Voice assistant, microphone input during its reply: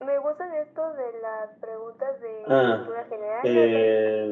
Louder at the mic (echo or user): user